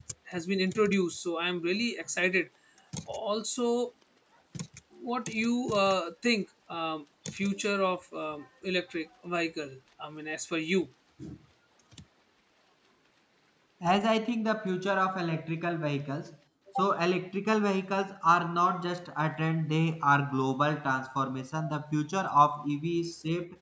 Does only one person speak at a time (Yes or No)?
Yes